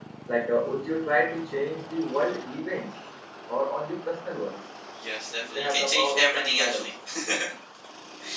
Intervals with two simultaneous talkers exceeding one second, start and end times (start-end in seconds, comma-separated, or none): 5.5-6.9